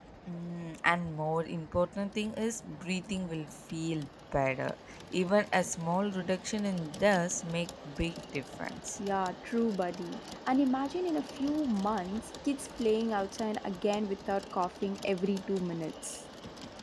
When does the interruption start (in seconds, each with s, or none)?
none